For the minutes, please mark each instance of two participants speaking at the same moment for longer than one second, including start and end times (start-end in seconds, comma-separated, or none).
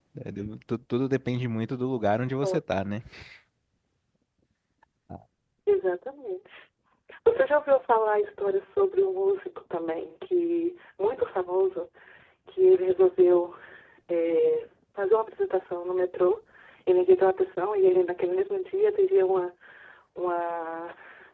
none